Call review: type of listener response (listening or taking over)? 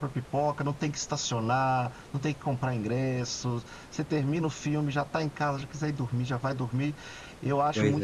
listening